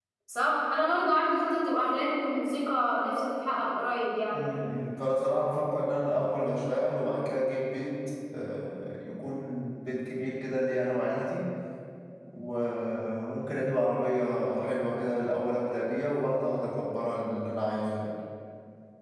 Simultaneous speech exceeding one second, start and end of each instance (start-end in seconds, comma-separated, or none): none